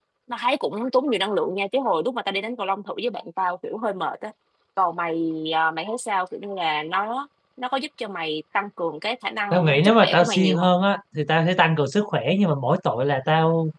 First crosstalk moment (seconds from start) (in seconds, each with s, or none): 9.5 s